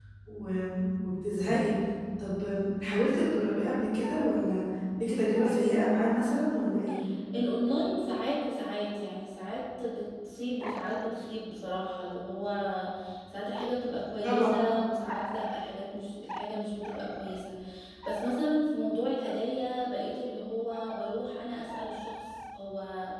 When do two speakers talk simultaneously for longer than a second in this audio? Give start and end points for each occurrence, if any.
none

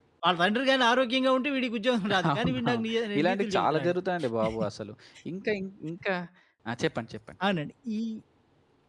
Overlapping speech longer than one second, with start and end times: 2.3-3.9

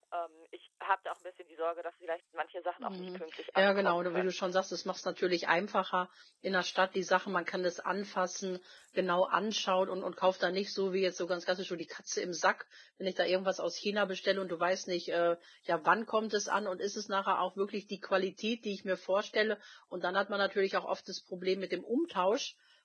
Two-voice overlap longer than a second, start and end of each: 2.8-4.6

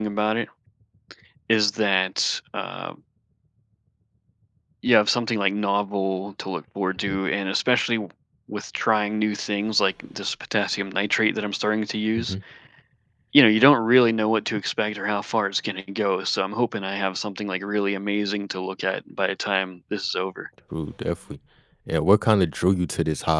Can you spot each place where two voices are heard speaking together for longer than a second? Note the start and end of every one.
none

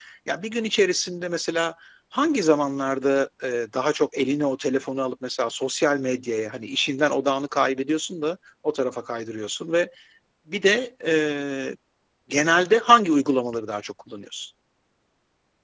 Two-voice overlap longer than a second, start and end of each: none

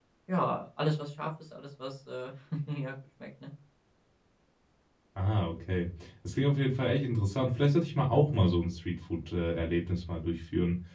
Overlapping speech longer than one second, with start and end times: none

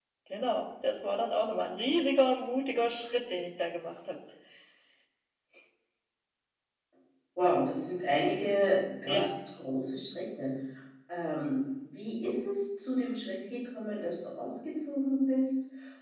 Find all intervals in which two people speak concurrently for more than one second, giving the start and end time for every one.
none

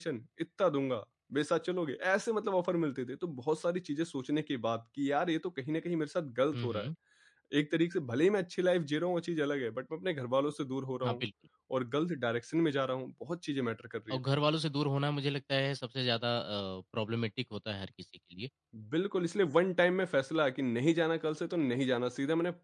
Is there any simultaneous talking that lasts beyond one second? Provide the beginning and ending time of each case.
none

